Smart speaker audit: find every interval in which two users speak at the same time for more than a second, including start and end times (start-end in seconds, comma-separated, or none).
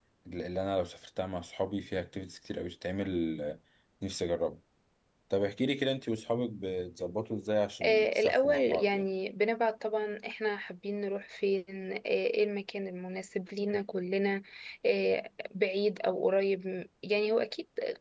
7.8-9.0